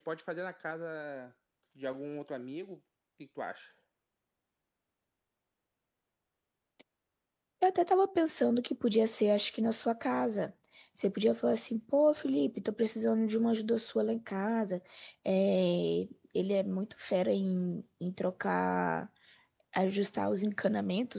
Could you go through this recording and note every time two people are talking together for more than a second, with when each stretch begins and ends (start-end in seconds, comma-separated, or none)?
none